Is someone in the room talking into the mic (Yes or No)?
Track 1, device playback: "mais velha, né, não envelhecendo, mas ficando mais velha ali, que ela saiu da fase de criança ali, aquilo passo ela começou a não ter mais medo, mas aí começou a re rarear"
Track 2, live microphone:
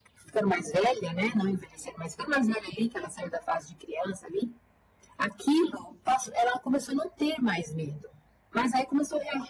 No